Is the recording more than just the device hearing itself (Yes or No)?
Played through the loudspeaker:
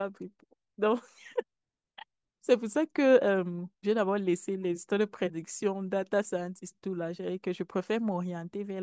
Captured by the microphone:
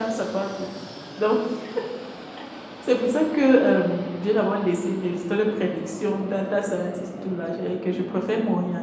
No